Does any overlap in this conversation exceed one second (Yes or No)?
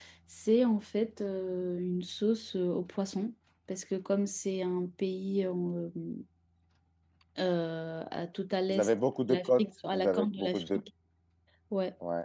Yes